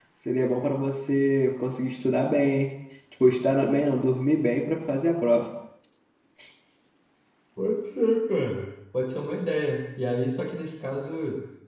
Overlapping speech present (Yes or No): No